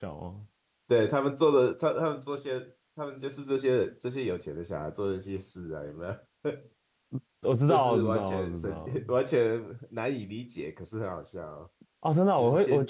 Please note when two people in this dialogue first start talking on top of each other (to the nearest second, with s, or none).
8 s